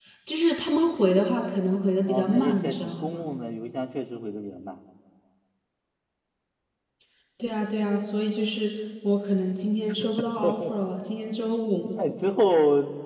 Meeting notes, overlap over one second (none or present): present